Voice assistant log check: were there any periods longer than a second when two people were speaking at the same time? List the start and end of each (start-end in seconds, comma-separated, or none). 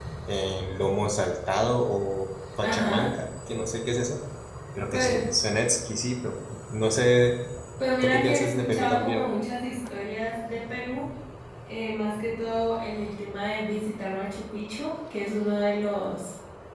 8.0-9.3